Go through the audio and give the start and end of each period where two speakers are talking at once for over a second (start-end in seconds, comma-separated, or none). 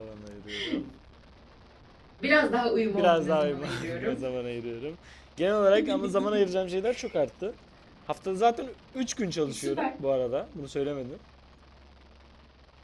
2.9-4.2